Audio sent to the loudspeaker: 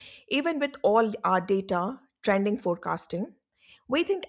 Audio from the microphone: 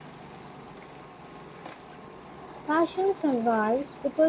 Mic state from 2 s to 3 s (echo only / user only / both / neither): user only